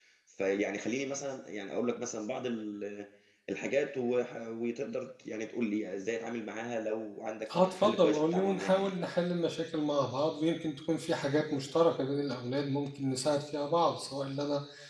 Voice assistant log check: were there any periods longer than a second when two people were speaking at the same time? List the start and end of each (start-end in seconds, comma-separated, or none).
7.6-8.9